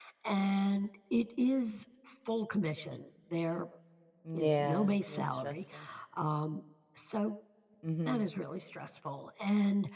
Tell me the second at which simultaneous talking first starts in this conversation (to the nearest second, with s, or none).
4 s